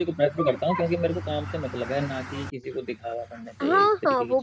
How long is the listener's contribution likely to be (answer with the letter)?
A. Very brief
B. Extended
B